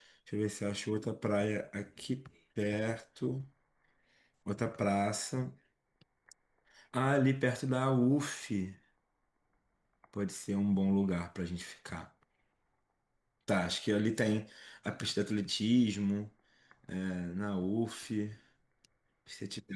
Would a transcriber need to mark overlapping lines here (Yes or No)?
No